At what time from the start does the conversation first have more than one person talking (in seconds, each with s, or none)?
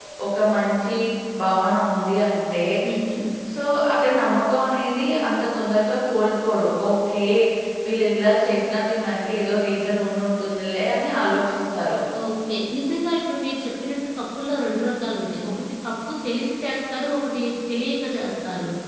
none